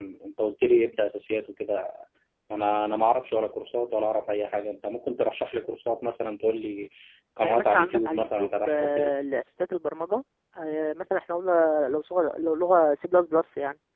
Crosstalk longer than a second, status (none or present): present